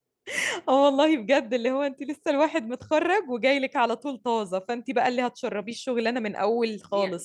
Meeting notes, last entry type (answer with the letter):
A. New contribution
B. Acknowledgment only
A